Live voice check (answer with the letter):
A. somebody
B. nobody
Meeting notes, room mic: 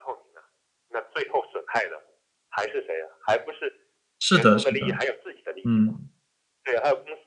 A